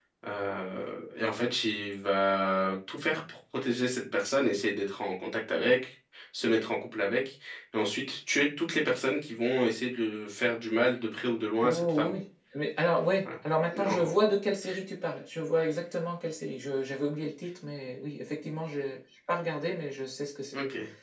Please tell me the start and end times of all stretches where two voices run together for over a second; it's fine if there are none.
none

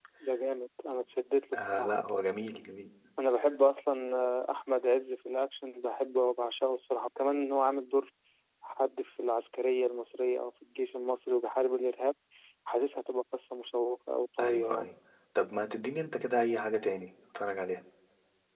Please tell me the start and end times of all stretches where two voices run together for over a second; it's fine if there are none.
none

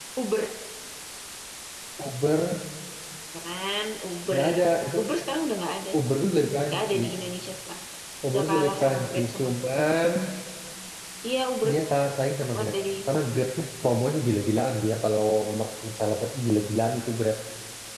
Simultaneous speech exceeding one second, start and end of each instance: 8.3-9.7

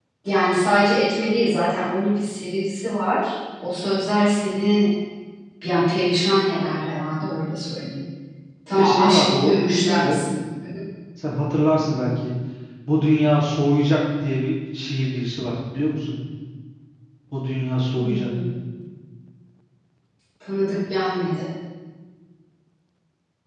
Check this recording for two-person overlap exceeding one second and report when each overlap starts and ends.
8.7-10.2

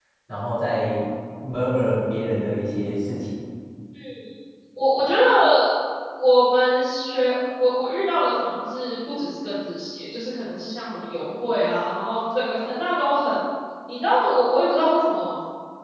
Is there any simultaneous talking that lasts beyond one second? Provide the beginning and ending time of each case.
none

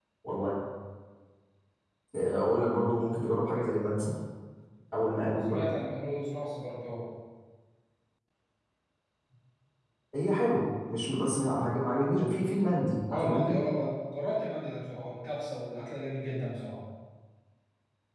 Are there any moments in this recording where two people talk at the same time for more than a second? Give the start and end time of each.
none

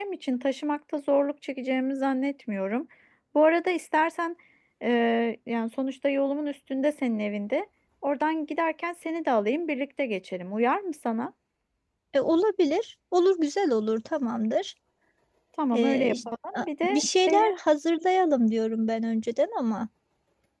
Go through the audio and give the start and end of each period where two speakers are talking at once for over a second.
15.7-17.5

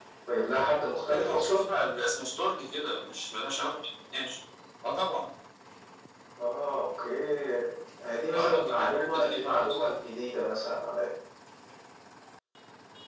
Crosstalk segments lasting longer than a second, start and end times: 8.3-9.8

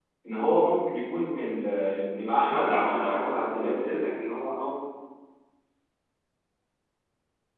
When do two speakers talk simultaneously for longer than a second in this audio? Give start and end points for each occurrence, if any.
2.1-4.0

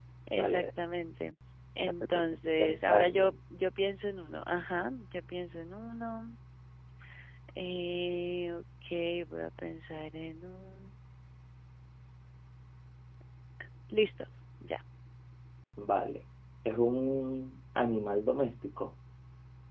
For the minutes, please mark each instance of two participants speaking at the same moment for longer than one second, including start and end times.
1.8-3.1

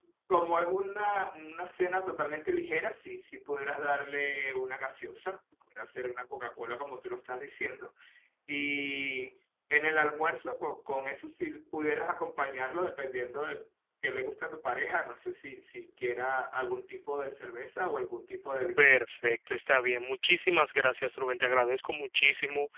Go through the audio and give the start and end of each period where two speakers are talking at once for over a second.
none

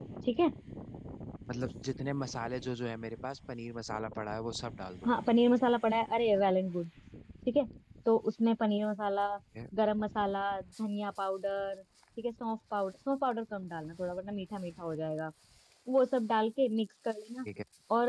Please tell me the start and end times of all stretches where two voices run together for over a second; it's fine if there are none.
none

